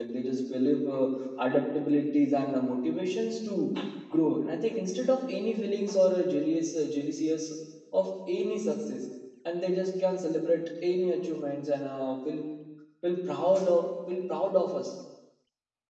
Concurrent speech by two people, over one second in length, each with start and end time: none

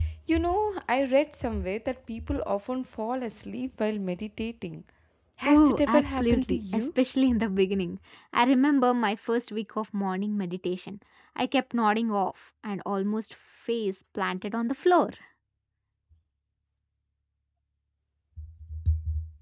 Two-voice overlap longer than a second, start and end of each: 5.5-6.8

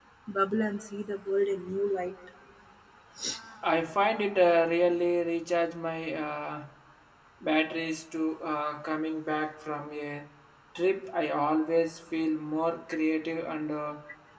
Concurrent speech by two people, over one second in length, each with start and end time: none

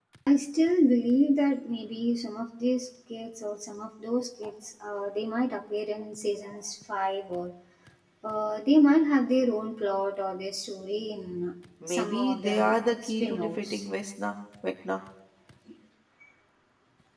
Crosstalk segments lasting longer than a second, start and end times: 11.9-13.8

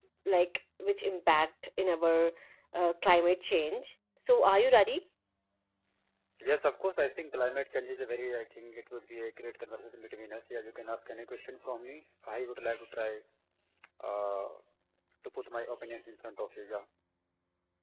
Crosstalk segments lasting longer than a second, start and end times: none

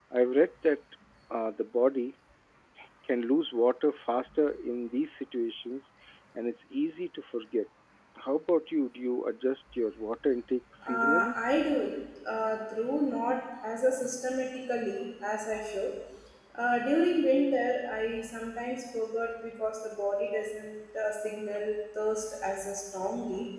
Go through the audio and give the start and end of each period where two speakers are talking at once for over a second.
none

